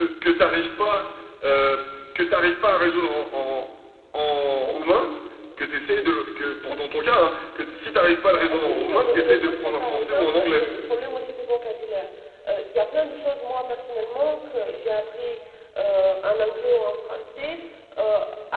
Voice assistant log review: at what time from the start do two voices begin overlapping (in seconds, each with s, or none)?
8.3 s